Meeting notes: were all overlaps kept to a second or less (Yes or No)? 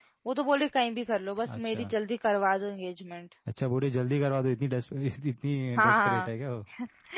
Yes